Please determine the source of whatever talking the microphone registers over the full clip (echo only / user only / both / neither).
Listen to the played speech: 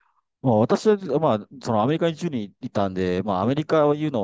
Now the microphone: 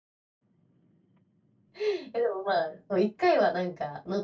user only